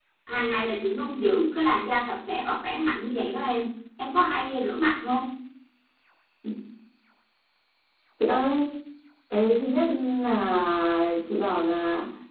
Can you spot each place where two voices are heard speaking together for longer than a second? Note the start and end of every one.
none

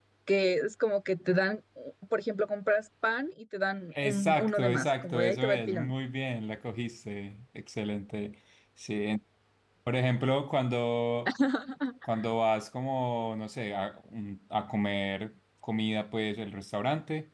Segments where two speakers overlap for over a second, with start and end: 4.0-5.9

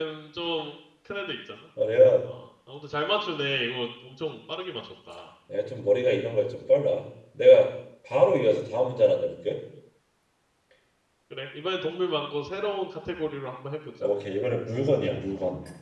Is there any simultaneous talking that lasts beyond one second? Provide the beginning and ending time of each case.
none

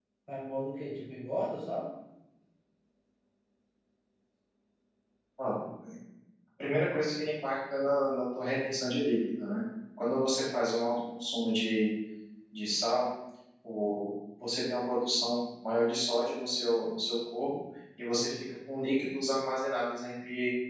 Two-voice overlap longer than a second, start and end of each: none

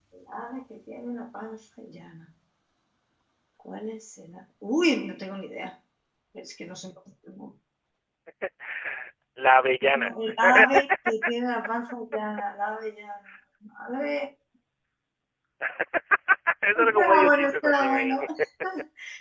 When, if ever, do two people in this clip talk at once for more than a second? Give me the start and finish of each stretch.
16.8-18.2

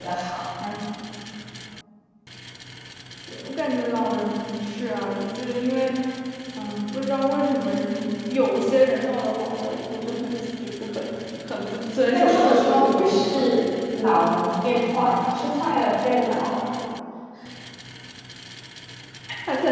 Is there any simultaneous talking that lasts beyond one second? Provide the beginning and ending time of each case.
12.1-13.4

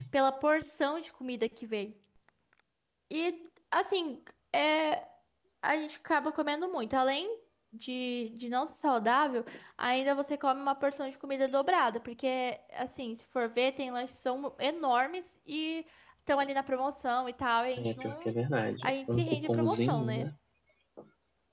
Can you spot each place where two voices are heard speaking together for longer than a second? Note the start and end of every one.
18.8-20.3

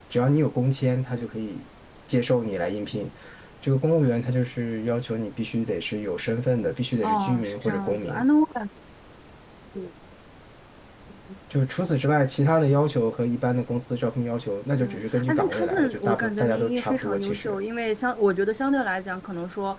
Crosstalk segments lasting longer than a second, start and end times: 7.0-8.2, 14.8-17.6

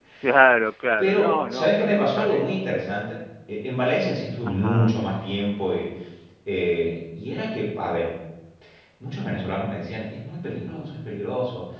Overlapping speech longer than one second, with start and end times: 1.0-2.5

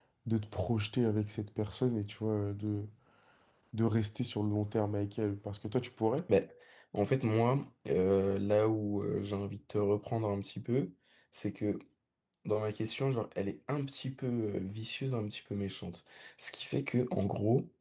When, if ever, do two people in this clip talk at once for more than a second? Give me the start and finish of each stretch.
none

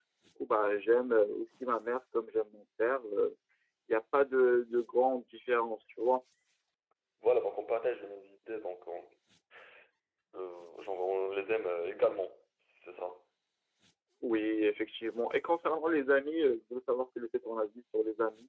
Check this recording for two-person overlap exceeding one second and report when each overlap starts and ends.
none

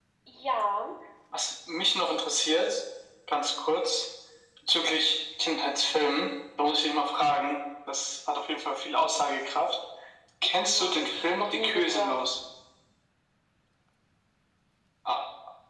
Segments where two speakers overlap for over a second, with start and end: 10.7-12.2

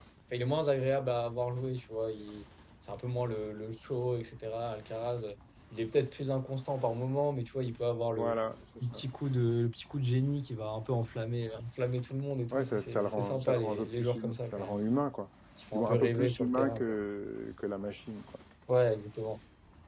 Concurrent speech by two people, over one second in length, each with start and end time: 12.5-14.8, 15.7-16.9

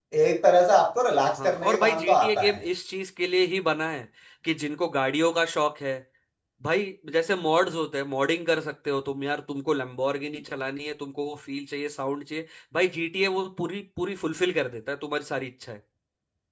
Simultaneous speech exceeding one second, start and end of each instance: 1.4-2.7

